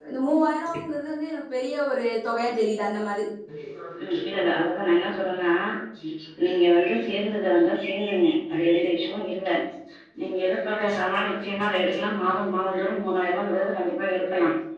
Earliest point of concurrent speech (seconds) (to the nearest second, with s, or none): none